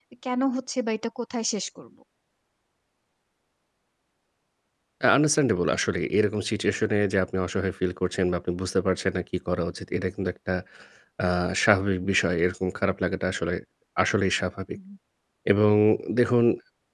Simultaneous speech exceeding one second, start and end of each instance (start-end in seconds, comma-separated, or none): none